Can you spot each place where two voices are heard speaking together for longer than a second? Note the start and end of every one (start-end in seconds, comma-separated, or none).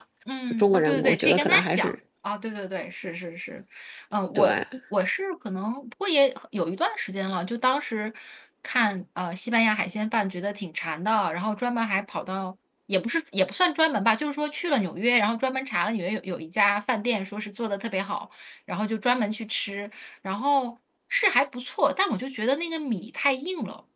0.6-1.9